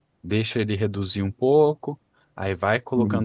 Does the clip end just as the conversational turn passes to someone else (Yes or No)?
No